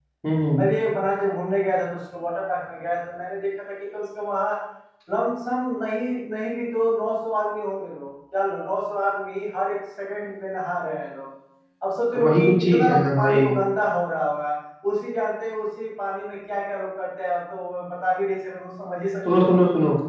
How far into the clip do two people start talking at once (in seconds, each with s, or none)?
12.2 s